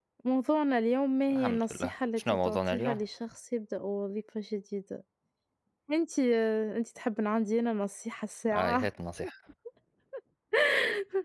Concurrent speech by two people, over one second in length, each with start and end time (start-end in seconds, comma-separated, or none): 1.3-3.0